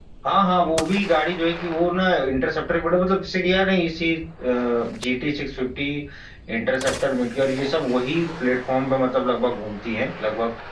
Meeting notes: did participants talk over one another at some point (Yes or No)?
No